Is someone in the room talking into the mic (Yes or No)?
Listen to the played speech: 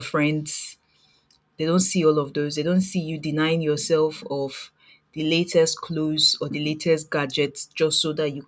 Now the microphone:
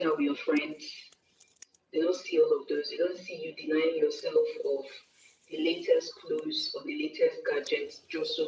No